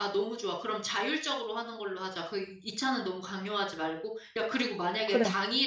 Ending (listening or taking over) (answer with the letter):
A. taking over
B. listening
B